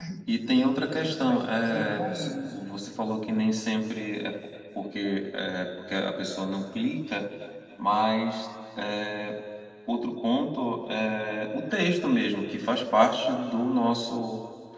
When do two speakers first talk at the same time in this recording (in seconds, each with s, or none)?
1.0 s